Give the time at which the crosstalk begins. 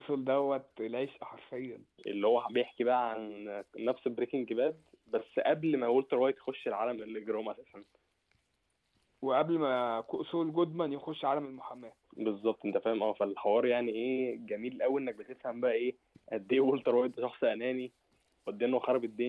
none

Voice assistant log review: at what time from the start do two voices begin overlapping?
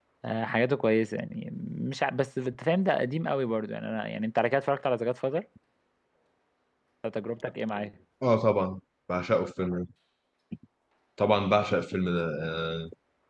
none

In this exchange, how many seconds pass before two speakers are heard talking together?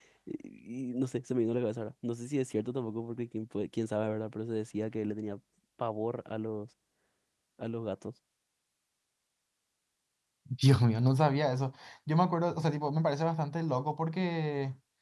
none

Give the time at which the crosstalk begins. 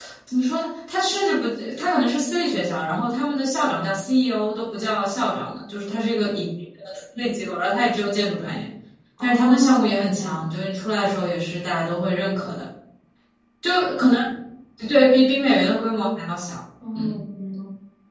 9 s

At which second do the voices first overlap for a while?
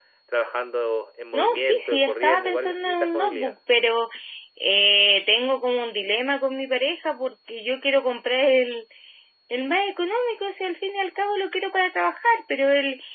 1 s

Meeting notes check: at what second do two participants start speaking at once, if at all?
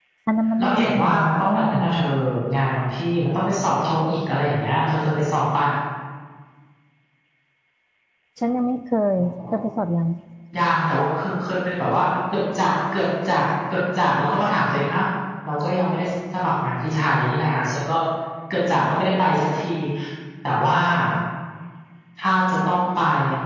1 s

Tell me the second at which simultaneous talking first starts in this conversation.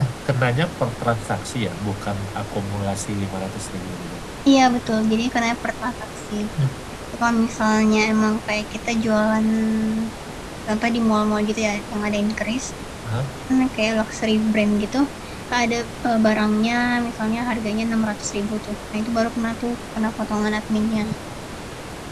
none

